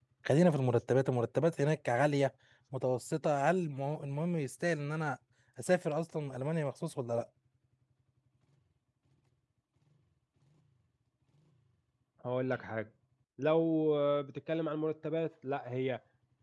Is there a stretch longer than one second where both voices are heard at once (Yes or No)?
No